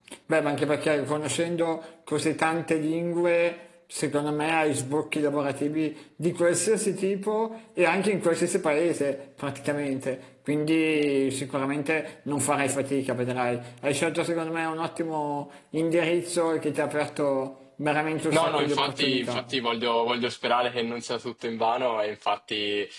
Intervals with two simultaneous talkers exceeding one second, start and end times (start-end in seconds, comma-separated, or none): 18.3-19.5